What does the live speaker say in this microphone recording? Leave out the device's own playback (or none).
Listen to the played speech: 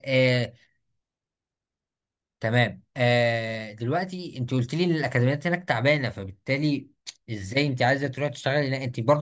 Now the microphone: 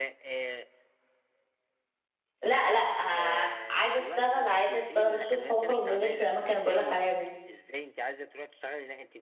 لا لا آه، عايزه اشتغل عايزه اشتغل الصبح واخرج بالليل في الاماكن اللي بقولك عليها دي